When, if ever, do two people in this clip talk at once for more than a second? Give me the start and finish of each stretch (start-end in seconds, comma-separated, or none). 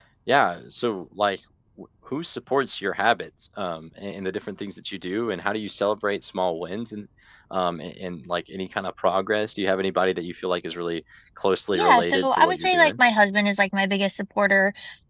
11.7-13.0